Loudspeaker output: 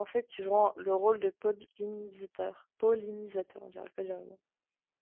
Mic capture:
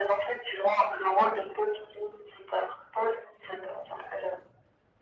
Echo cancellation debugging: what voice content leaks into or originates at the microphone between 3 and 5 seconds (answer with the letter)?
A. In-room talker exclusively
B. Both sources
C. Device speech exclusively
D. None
C